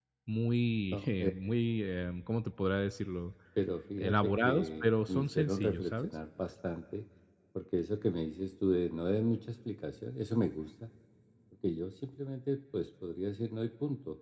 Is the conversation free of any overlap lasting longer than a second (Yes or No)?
No